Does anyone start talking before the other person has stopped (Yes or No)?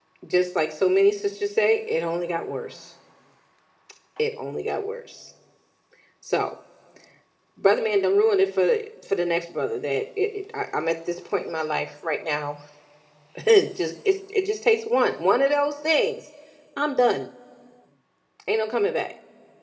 No